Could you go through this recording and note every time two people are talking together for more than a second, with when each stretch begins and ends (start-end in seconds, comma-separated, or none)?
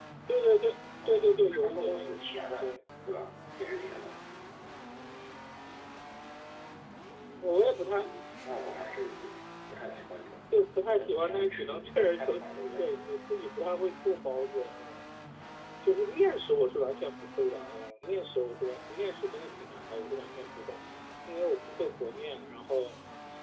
1.0-2.8, 10.9-13.1